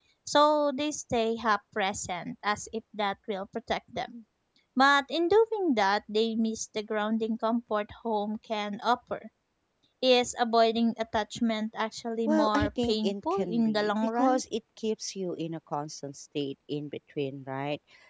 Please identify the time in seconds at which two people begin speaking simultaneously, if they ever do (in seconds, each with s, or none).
12.3 s